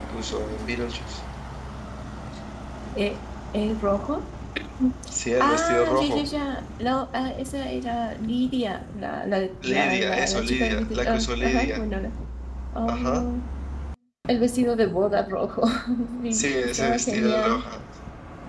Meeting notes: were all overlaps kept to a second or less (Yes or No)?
No